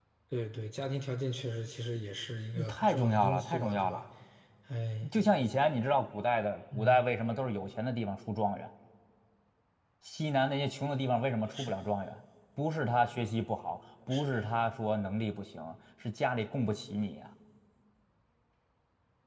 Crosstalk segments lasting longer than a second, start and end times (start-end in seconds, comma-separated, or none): 2.5-4.0